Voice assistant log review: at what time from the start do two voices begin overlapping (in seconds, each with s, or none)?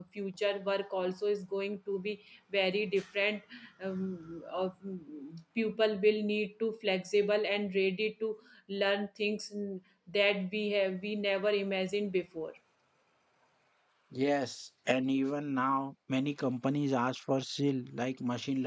none